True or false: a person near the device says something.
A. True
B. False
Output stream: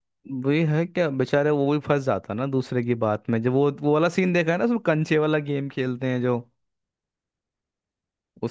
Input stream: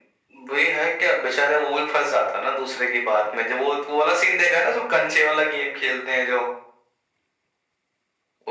B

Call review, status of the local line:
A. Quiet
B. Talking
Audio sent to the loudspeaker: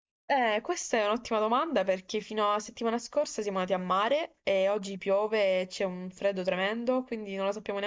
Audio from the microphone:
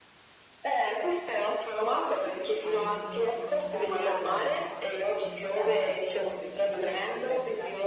B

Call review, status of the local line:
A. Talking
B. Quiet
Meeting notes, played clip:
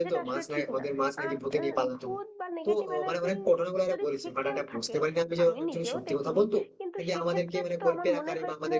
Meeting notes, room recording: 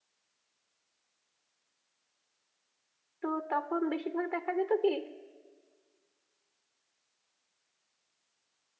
A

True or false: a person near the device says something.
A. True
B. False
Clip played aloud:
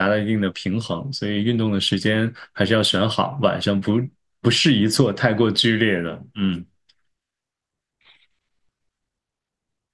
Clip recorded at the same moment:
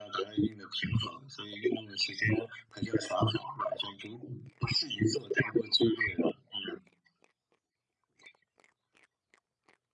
B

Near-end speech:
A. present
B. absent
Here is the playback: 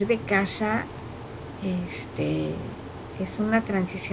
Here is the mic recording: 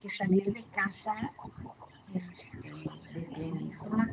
A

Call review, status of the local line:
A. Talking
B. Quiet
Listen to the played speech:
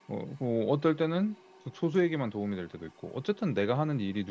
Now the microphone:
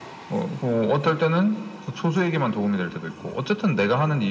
B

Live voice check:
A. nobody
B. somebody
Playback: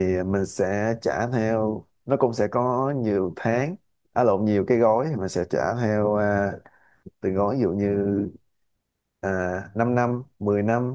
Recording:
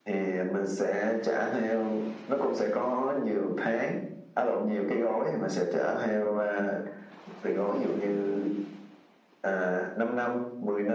A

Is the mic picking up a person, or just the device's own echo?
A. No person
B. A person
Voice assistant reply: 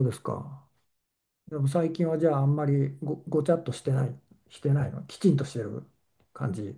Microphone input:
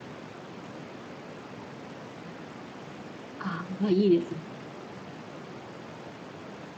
B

